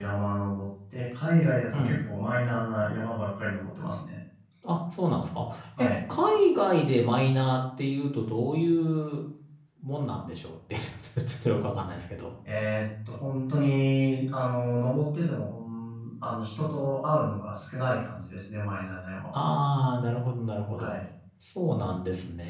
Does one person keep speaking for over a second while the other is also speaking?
No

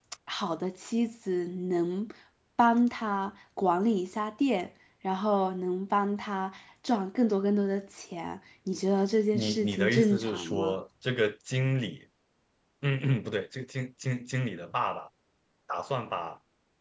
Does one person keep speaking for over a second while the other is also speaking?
Yes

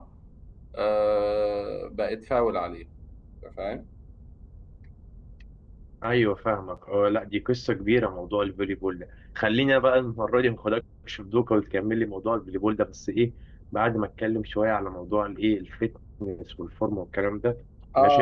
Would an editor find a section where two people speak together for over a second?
No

